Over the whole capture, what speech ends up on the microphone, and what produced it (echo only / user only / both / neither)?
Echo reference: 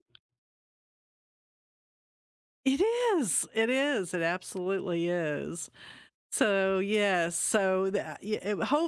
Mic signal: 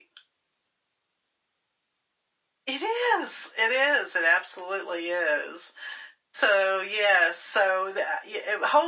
echo only